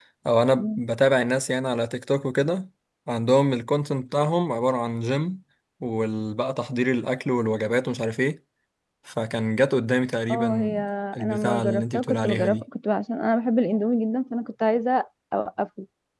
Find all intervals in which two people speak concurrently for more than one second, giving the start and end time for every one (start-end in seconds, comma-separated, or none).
11.2-12.6